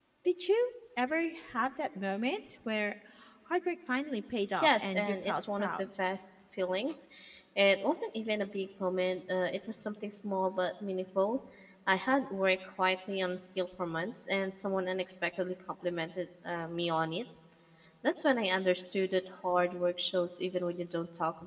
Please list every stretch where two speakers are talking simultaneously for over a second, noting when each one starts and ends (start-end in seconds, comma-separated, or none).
4.6-5.9